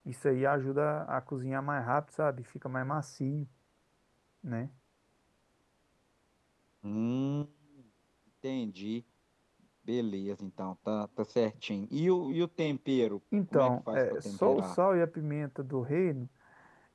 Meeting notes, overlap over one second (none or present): present